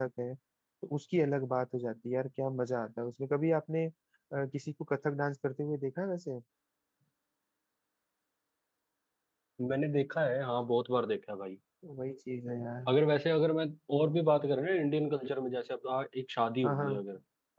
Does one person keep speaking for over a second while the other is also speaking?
No

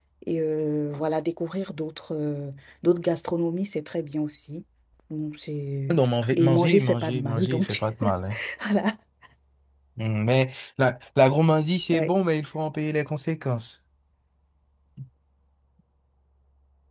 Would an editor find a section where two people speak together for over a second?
Yes, from 6.3 s

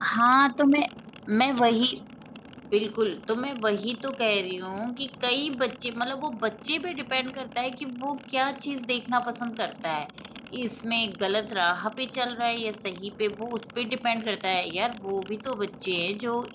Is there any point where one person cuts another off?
No

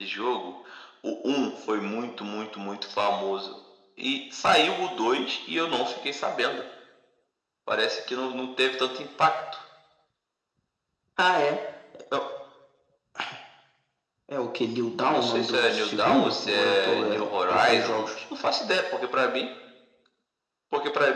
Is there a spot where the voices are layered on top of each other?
Yes, from 15.0 s

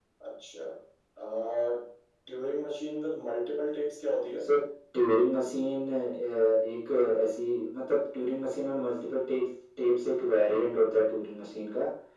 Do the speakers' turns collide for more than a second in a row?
No

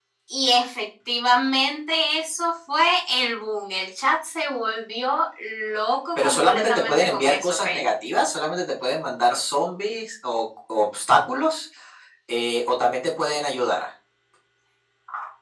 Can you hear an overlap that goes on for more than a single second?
Yes, from 6.2 s

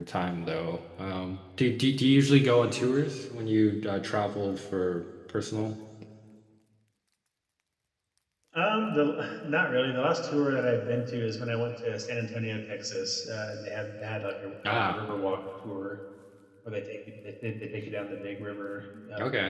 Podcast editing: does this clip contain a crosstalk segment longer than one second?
No

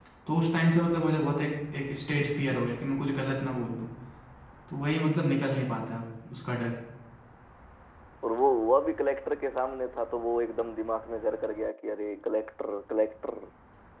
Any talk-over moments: No

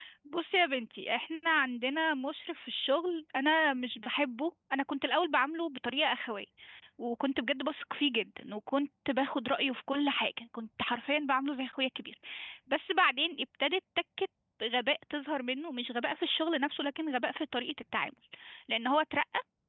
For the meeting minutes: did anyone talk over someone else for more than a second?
No

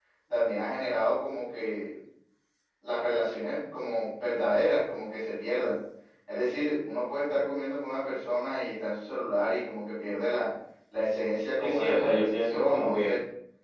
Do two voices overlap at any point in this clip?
Yes, from 11.6 s

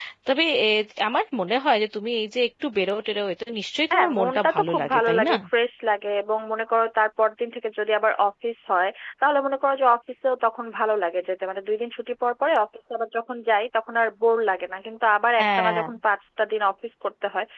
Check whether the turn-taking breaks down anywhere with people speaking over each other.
Yes, from 3.9 s

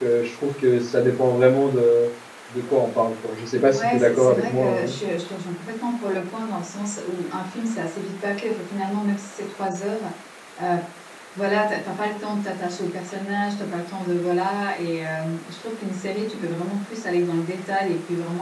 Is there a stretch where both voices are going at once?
Yes, from 3.7 s

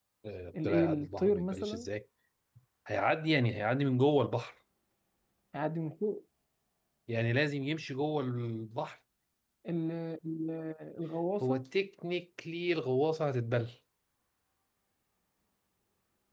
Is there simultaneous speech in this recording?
Yes, from 0.6 s

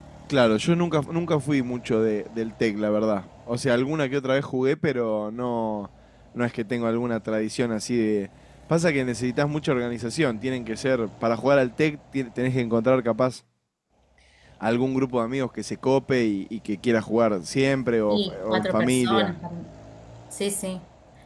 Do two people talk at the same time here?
Yes, from 18.1 s

